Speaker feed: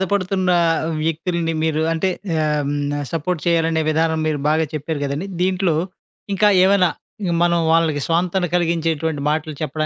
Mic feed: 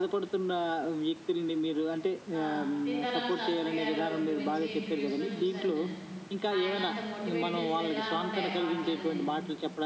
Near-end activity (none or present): present